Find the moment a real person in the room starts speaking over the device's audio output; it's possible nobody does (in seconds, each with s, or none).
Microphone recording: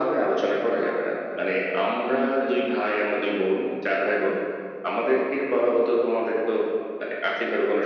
2.0 s